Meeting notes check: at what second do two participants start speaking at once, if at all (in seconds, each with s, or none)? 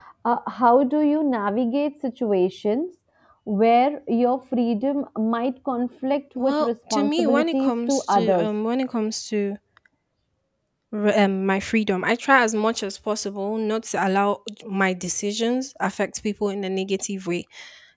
6.4 s